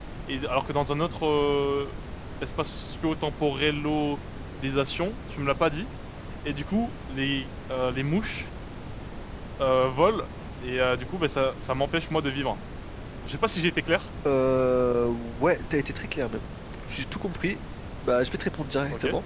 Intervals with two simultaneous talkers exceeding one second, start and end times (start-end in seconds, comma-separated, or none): none